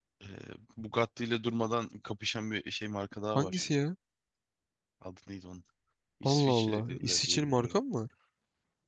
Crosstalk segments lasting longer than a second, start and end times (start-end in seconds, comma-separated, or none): 6.2-7.8